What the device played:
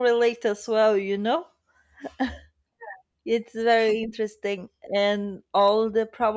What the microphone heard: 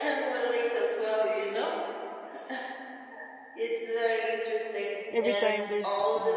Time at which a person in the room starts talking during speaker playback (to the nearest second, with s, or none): 5 s